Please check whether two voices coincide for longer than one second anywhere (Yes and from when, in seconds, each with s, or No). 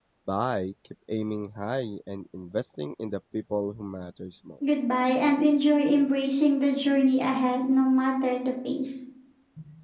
No